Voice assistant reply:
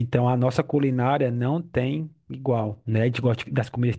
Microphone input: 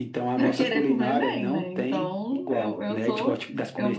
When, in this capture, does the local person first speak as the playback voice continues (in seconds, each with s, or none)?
0.3 s